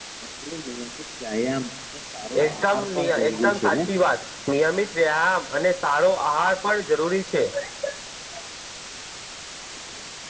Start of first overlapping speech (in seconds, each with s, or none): 2.4 s